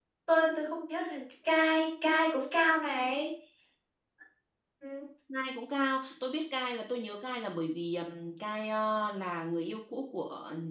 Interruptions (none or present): none